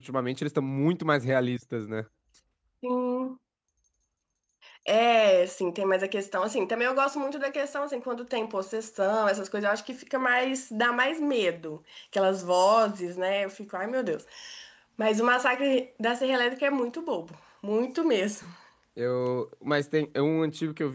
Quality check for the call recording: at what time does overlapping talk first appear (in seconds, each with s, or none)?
none